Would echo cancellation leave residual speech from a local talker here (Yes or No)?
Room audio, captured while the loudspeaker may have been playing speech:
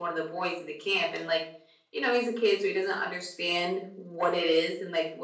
No